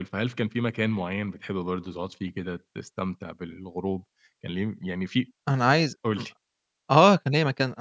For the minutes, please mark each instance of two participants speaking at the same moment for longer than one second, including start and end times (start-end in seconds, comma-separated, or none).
none